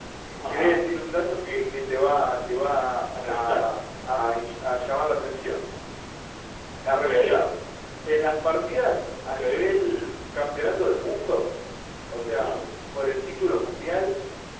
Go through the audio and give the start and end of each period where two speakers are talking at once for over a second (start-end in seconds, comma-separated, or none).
none